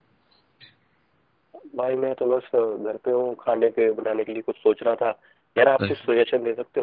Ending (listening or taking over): listening